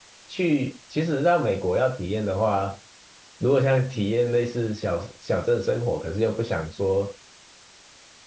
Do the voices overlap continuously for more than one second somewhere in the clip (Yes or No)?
No